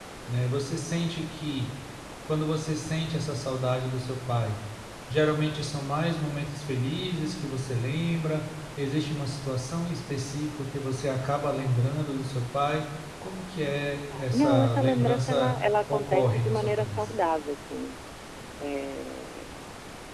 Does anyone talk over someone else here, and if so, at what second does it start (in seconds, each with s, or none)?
14.1 s